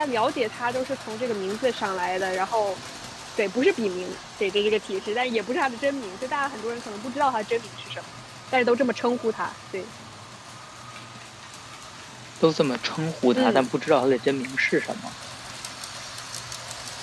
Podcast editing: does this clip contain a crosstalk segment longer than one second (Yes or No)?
No